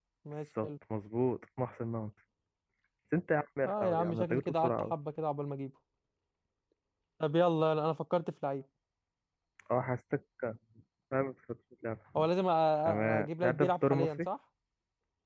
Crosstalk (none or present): present